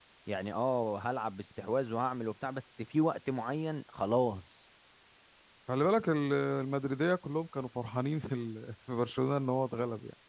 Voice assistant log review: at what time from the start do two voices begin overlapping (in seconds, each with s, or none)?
none